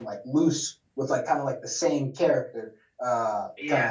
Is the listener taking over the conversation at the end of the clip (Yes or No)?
No